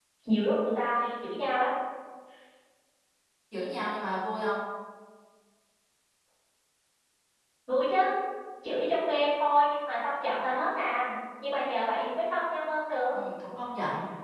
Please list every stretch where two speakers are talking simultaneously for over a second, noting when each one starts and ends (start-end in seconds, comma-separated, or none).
none